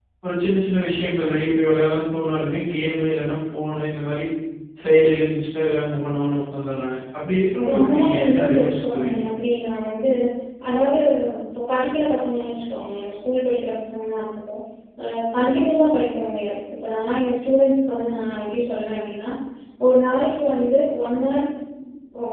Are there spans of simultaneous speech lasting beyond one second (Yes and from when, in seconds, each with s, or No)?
Yes, from 7.7 s